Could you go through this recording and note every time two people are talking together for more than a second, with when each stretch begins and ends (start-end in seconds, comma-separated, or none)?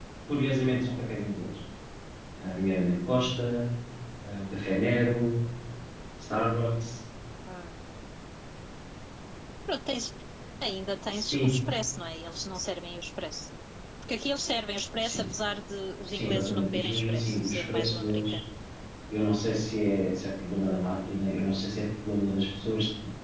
16.1-18.3